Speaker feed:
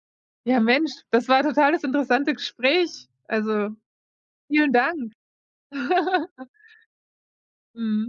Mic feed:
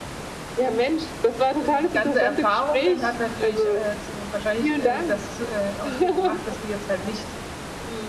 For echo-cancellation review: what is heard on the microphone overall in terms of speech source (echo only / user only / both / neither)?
both